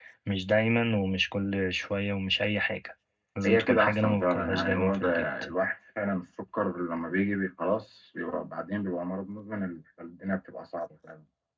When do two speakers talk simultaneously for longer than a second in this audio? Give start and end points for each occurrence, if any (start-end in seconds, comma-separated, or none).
3.4-5.4